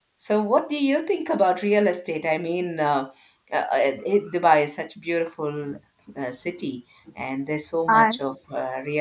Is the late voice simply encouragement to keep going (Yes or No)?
Yes